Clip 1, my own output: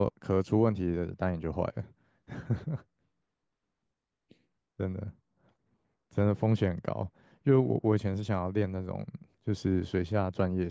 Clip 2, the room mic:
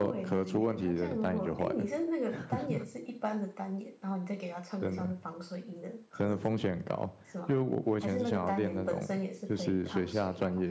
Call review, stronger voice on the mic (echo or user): echo